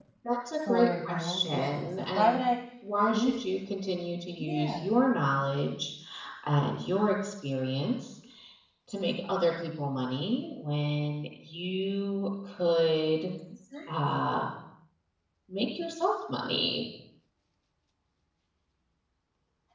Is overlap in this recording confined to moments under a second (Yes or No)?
No